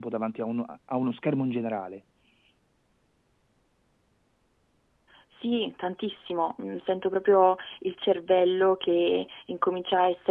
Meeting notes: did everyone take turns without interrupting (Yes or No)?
Yes